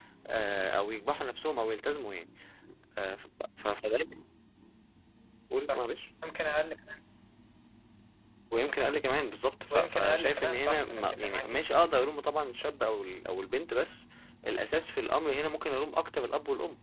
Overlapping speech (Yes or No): Yes